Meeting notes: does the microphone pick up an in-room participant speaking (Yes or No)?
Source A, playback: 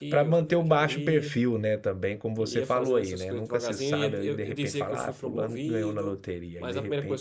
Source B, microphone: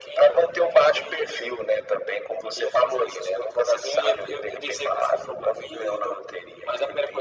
No